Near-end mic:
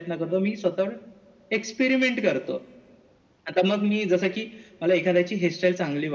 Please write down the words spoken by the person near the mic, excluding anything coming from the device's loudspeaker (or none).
none